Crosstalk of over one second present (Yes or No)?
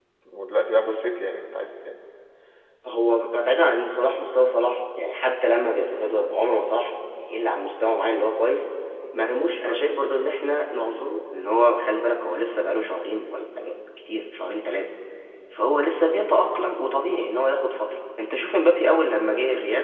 No